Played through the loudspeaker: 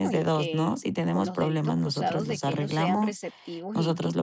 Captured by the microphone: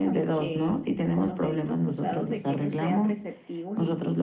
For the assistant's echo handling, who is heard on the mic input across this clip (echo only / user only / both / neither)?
echo only